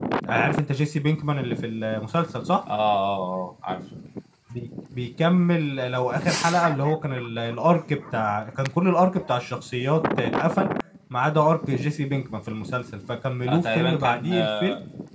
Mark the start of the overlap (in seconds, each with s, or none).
13.5 s